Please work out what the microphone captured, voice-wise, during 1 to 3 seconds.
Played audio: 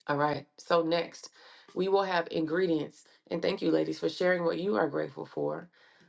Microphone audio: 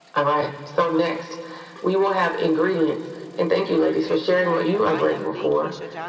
echo only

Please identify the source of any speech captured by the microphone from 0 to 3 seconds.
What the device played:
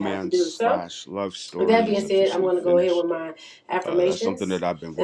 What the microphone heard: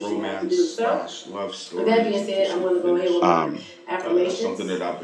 echo only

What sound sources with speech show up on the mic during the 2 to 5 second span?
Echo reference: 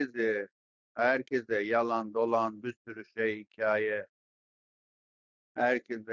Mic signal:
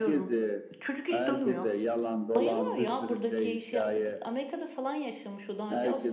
both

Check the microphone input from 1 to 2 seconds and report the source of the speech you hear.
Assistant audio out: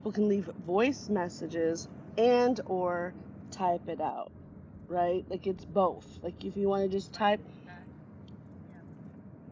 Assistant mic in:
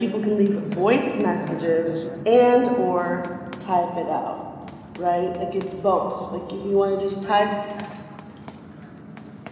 both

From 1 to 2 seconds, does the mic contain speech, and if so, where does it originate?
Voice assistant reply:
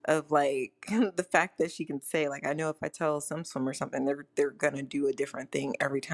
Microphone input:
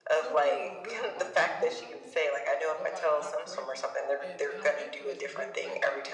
both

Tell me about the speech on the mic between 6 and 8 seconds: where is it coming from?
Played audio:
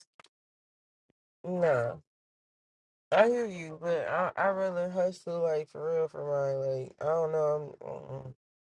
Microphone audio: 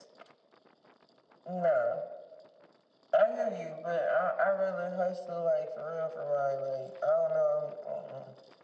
echo only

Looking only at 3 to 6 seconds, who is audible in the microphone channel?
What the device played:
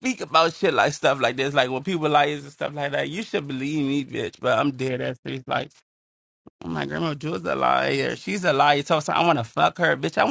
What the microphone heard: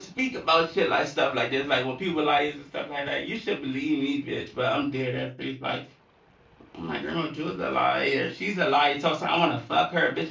echo only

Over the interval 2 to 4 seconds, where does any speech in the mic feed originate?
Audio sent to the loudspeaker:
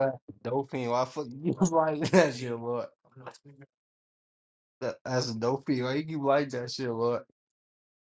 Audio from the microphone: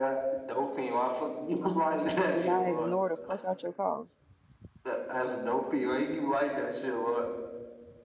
both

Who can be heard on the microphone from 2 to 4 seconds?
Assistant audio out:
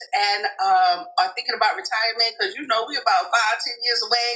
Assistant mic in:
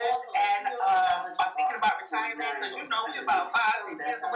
both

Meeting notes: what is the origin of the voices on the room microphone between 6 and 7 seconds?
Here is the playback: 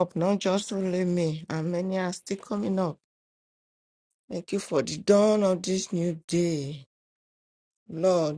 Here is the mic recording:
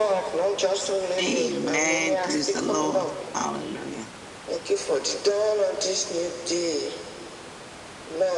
echo only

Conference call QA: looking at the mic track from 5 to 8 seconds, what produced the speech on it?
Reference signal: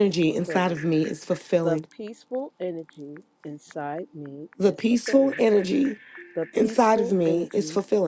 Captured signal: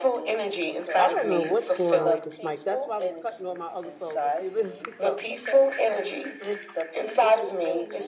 both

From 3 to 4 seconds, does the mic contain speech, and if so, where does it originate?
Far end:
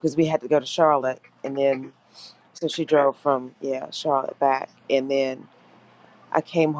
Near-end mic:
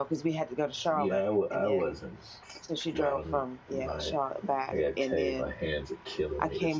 both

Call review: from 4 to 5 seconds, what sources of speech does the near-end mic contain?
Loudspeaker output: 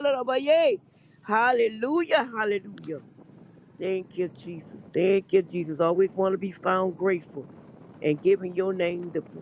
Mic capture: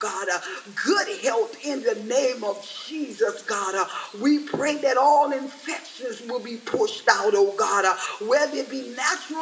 user only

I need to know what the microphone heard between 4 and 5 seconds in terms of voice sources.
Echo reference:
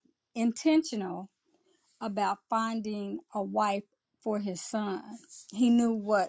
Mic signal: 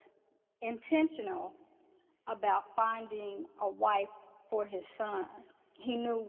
echo only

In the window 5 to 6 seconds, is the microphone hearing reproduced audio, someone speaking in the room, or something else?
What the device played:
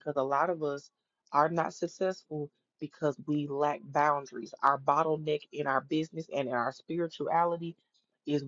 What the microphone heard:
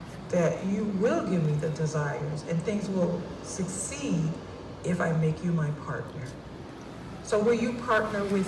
user only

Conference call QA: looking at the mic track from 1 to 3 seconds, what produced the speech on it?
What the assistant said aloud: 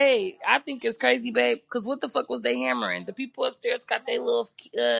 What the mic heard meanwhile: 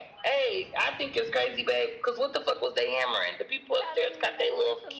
echo only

